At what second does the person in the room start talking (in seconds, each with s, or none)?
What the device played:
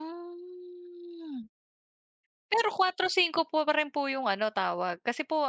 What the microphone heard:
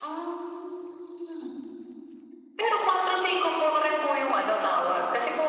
none